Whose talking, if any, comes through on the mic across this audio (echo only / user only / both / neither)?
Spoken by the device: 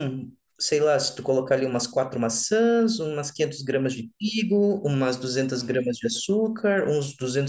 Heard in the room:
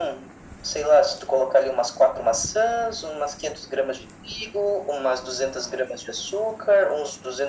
echo only